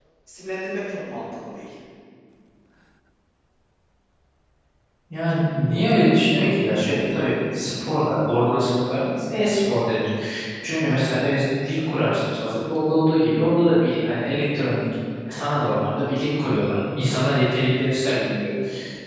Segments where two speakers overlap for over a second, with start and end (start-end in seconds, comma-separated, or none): none